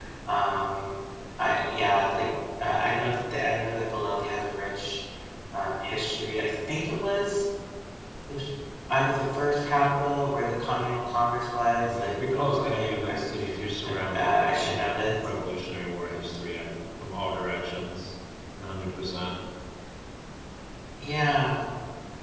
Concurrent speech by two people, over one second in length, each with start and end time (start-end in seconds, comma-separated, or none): 11.8-13.3, 13.9-15.1